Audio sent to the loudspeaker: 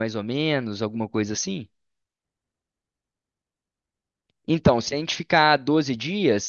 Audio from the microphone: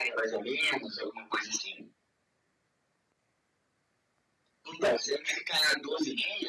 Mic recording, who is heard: echo only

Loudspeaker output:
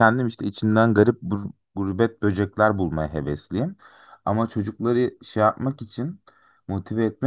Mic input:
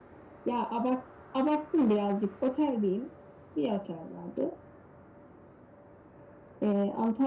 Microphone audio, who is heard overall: user only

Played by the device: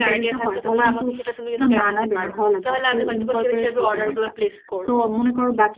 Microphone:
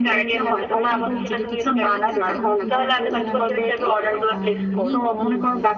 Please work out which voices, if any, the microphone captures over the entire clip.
both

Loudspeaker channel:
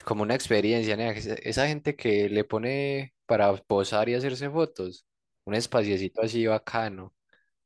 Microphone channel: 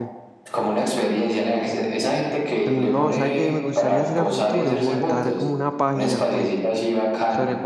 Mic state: both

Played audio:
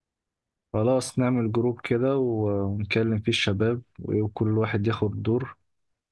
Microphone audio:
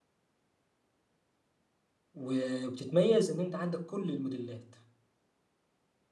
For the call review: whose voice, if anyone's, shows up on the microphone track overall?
user only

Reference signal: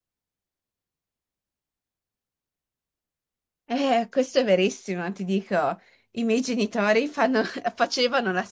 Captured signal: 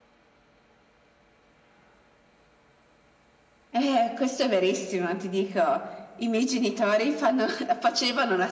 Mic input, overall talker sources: echo only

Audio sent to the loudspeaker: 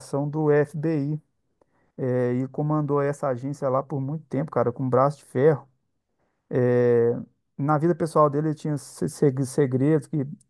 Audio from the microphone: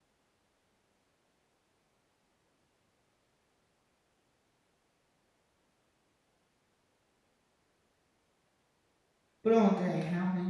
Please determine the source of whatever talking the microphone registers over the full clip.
user only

